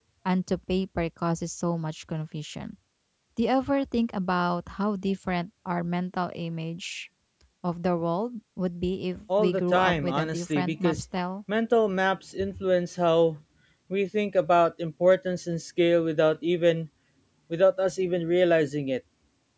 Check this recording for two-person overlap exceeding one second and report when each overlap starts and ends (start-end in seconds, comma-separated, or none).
9.4-11.0